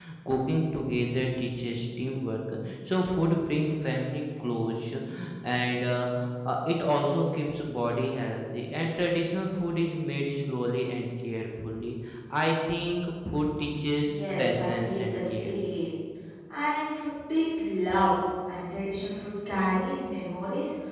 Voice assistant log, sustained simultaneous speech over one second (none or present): present